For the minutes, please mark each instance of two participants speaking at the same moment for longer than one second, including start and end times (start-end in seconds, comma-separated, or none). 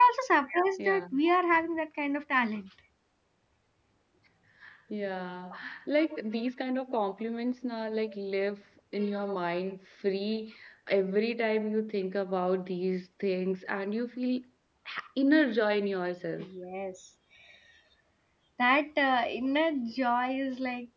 none